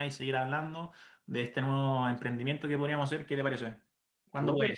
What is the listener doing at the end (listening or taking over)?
taking over